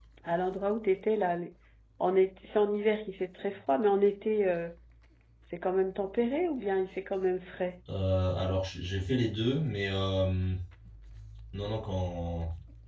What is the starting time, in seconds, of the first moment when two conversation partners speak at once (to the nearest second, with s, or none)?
none